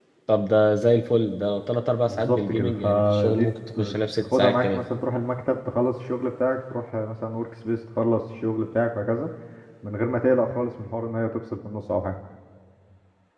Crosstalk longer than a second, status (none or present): present